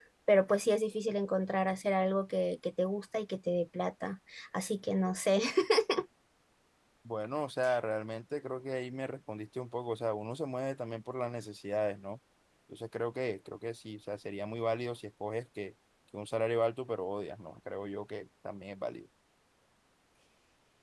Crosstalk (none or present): none